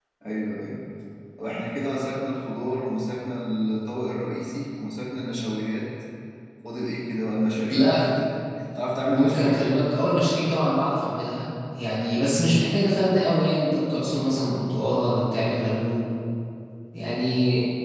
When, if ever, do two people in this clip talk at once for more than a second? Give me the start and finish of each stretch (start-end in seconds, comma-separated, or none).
none